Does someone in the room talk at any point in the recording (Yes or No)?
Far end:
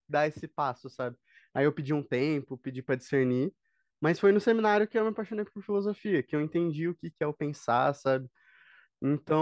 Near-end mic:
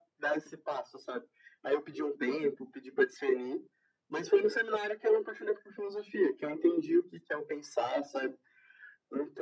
No